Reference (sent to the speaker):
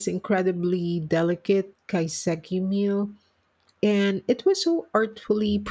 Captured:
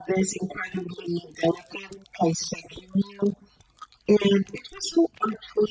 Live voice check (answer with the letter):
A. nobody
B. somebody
A